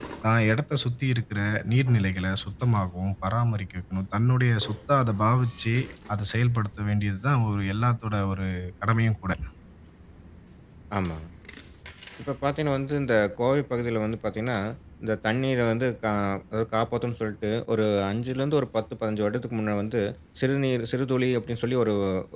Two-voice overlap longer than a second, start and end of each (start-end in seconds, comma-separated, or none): none